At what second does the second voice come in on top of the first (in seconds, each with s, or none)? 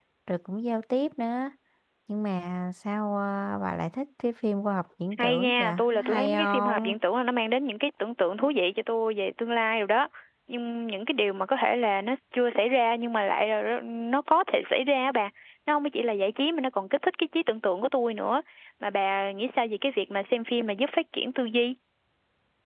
5.2 s